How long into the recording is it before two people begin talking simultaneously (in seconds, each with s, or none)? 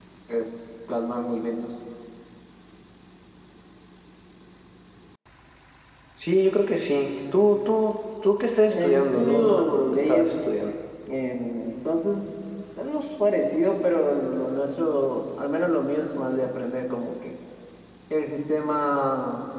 8.7 s